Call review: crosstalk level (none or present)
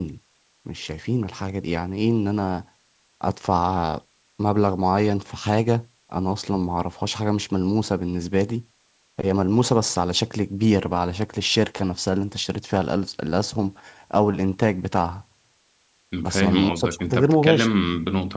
present